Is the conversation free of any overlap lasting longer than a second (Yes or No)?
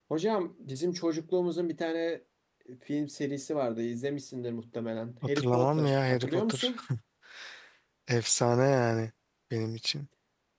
No